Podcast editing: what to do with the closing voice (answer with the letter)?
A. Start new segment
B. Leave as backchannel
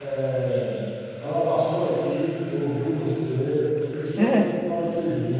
B